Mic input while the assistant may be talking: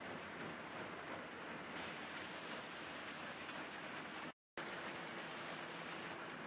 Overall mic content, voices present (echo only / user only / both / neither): neither